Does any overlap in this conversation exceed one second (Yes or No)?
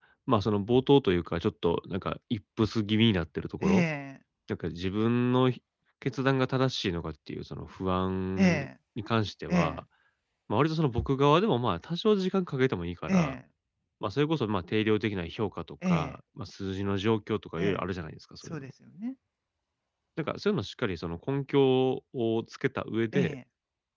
No